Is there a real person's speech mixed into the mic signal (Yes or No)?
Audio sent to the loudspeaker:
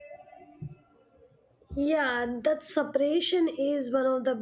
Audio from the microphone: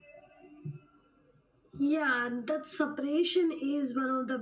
No